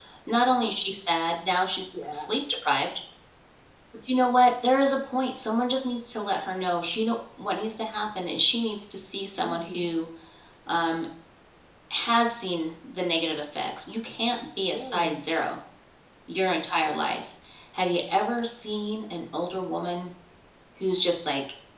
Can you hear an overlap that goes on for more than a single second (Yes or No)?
No